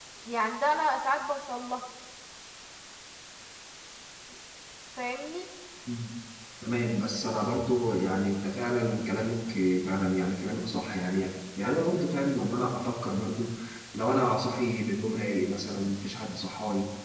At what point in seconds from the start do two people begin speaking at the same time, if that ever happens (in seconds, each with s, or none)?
none